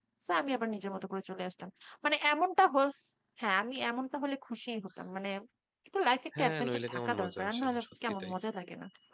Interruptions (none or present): present